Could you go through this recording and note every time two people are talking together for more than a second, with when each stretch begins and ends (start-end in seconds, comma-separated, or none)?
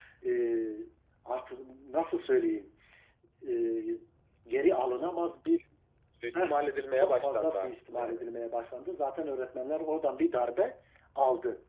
7.0-8.2